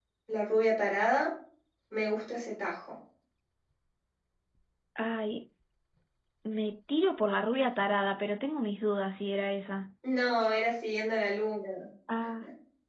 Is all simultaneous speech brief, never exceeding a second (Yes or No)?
Yes